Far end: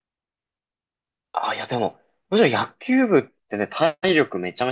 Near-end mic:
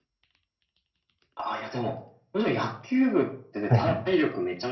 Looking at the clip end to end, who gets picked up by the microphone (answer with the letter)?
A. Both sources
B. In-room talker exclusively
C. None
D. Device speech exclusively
A